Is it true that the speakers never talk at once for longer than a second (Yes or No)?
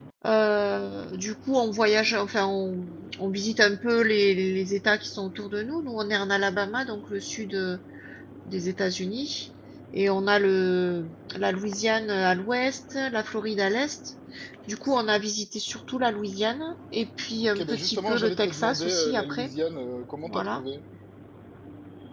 No